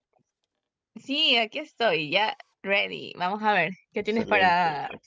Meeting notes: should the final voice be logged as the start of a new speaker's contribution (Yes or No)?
Yes